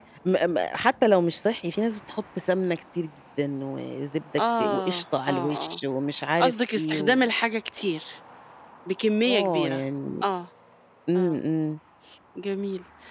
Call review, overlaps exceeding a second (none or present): present